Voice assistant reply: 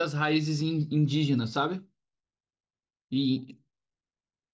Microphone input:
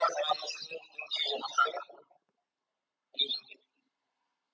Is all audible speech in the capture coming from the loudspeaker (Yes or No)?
Yes